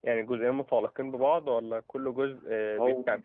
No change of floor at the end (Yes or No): No